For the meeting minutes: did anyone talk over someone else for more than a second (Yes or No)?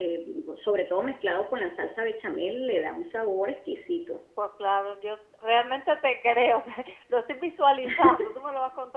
No